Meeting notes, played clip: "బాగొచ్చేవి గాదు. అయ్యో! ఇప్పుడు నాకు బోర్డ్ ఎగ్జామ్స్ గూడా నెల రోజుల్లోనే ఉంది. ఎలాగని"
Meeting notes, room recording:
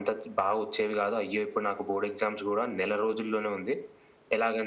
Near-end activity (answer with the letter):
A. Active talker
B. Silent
B